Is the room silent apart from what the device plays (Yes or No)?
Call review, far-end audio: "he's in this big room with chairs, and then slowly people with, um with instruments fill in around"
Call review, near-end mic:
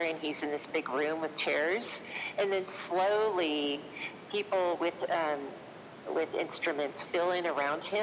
Yes